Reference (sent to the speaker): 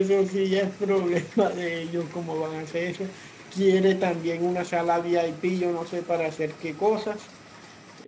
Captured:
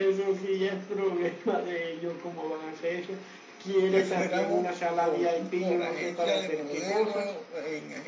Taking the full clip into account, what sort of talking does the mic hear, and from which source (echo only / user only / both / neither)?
both